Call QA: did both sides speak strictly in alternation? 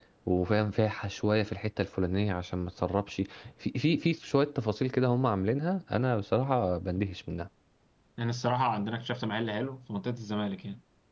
Yes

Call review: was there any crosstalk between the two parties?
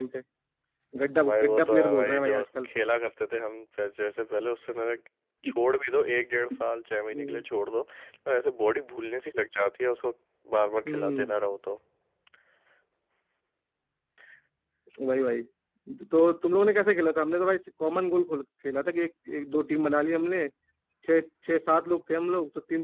Yes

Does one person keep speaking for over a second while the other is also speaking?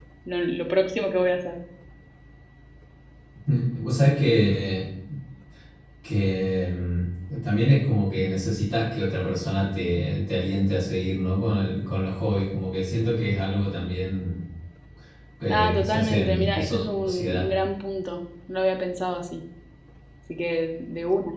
Yes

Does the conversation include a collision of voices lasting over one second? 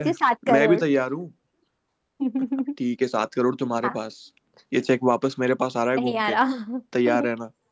No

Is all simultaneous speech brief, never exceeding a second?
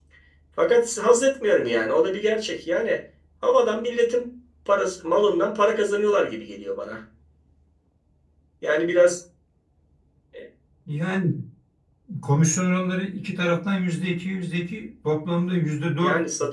Yes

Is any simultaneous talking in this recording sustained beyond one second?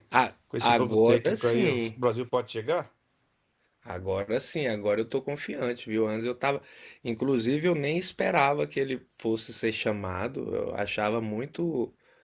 Yes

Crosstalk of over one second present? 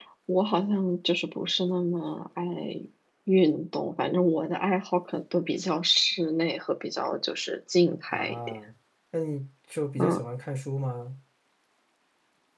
No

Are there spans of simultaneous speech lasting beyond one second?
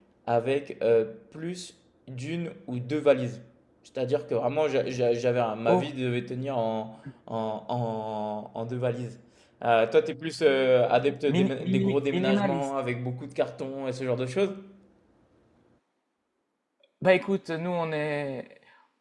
Yes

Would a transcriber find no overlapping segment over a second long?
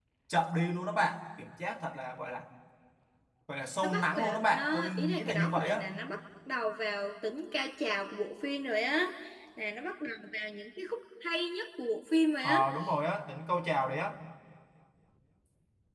No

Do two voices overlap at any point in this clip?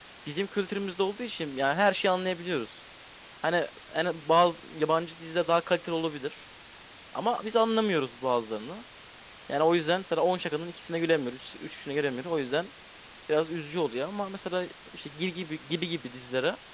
No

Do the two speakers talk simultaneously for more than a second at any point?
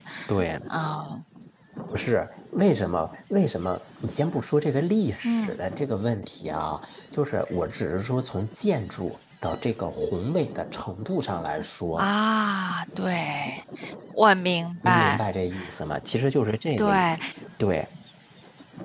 No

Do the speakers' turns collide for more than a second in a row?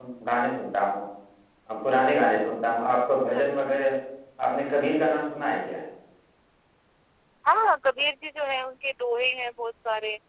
No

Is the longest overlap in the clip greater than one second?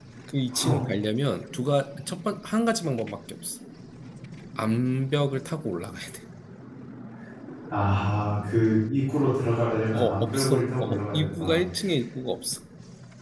Yes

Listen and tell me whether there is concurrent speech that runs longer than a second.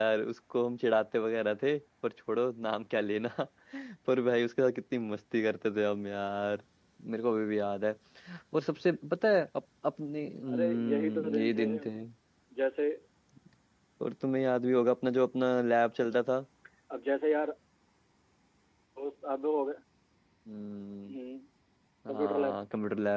Yes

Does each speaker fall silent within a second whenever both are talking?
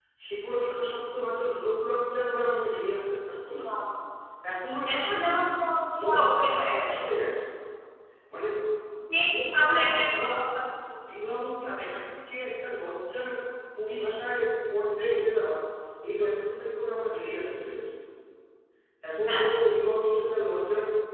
No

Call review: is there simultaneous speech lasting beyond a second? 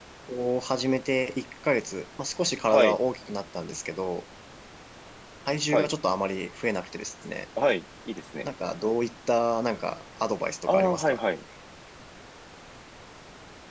No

